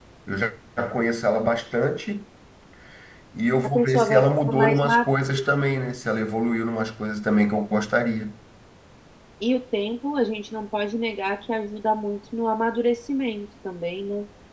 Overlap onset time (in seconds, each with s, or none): 3.6 s